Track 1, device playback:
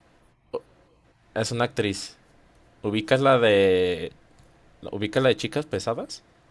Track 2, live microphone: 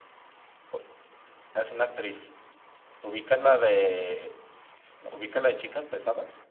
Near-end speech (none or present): none